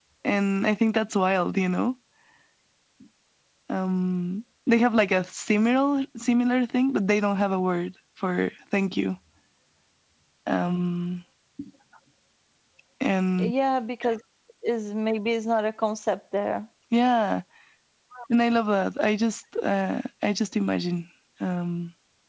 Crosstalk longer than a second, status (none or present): none